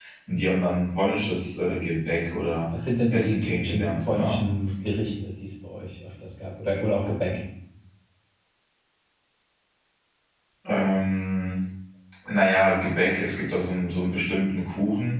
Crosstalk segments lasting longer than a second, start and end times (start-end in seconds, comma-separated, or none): 3.1-4.4